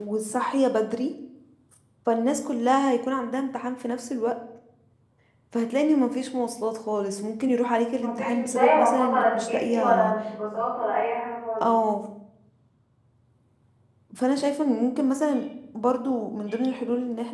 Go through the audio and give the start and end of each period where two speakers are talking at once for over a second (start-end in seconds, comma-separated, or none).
8.0-10.1